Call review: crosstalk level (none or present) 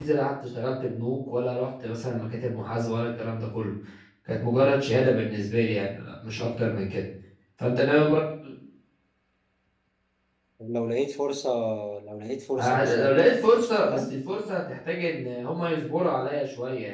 present